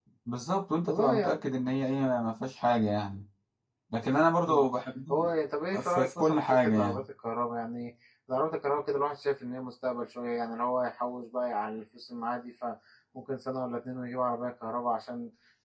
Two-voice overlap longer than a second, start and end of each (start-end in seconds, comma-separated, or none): 5.8-7.0